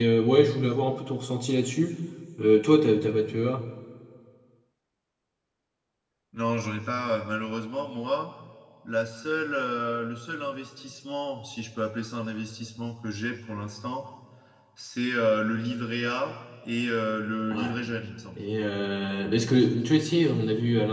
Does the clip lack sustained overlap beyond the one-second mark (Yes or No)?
Yes